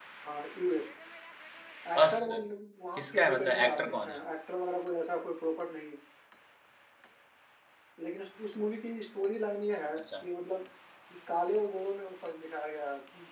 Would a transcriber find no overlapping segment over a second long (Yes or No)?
No